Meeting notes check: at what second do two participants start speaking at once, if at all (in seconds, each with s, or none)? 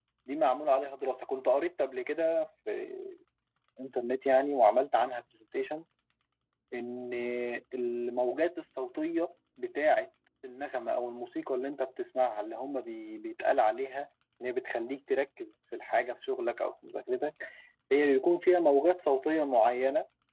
none